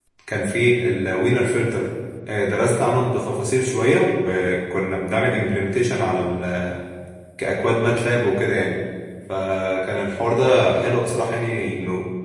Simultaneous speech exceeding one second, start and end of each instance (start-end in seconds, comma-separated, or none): none